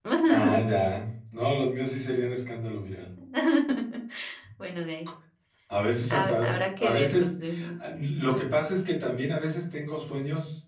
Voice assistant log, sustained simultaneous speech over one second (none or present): present